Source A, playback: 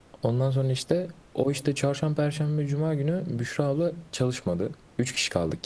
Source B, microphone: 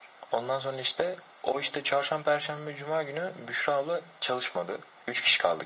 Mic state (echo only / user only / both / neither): echo only